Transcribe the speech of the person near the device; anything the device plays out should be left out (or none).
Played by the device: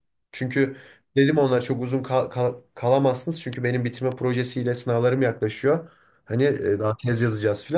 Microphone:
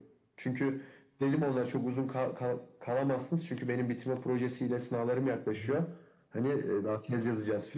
Hı hı.